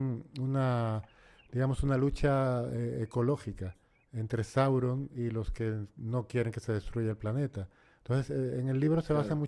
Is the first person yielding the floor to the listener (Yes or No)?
No